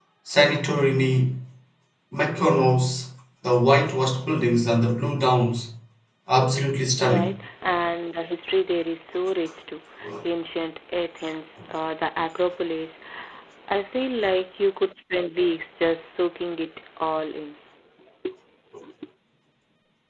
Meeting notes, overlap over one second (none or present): none